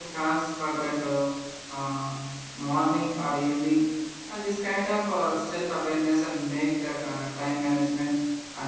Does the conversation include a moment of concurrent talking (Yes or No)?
No